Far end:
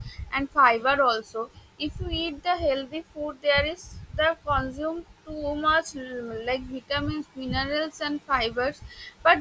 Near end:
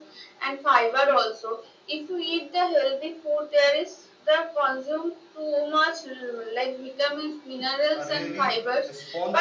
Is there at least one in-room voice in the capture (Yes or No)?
Yes